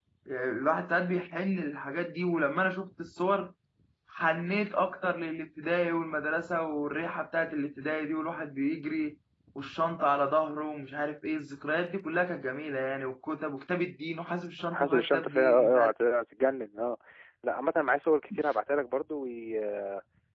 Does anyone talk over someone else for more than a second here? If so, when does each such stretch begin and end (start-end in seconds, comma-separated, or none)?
14.7-15.9